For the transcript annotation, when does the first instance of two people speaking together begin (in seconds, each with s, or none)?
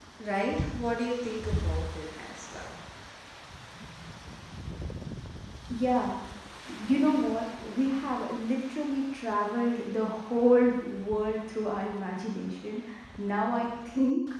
none